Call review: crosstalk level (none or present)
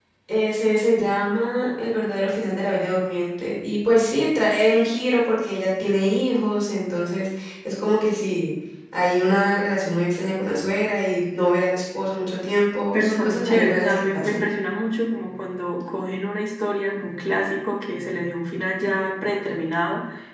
present